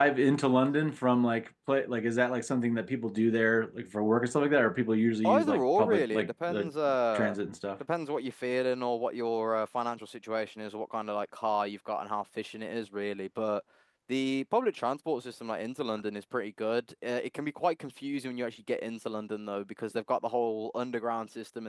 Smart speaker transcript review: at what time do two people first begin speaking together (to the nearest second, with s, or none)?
5 s